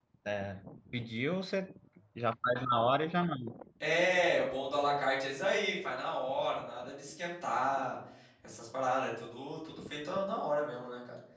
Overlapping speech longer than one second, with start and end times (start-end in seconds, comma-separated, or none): none